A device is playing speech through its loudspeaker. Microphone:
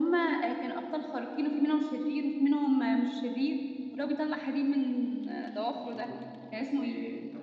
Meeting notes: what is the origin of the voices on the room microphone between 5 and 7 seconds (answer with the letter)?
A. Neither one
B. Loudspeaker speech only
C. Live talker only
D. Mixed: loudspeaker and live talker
D